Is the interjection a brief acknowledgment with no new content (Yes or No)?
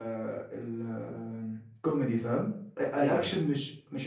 Yes